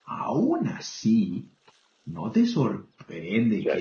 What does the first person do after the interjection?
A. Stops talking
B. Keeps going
B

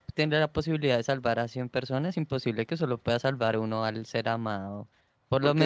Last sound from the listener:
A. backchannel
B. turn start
B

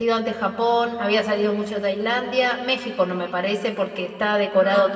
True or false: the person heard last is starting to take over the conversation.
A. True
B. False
B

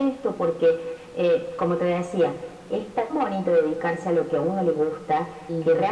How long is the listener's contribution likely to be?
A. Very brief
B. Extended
A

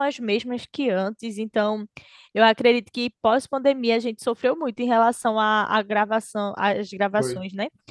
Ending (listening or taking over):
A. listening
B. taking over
A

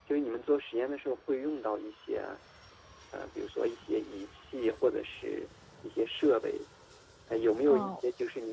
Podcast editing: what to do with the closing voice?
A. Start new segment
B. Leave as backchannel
B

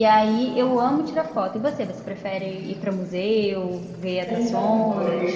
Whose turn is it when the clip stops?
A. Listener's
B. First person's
A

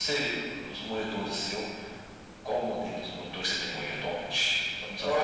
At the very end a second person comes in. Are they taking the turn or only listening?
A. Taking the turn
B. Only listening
A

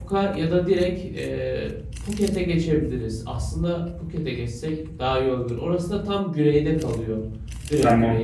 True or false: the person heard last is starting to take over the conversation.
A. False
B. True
B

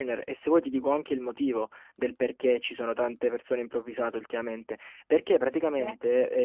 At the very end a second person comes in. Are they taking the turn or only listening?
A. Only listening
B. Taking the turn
A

